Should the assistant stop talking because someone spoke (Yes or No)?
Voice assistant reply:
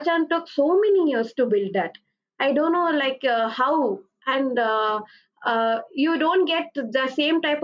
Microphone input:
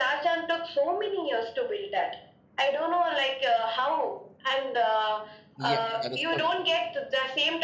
Yes